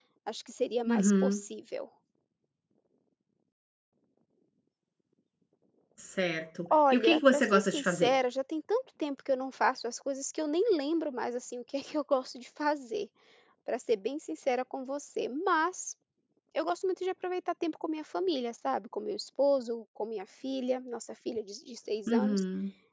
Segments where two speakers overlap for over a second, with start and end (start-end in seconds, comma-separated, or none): 6.9-8.1